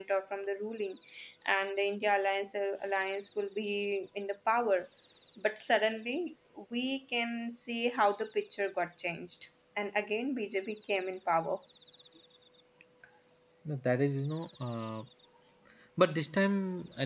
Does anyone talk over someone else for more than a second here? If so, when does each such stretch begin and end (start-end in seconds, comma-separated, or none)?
none